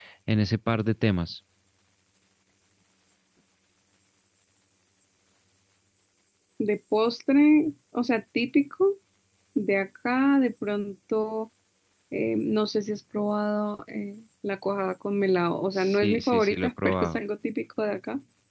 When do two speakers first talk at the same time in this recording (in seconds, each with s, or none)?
15.7 s